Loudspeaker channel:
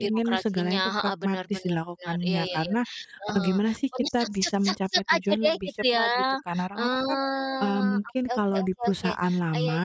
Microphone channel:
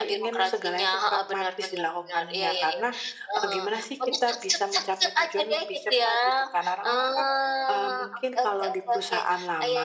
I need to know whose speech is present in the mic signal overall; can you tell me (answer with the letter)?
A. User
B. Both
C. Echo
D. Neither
C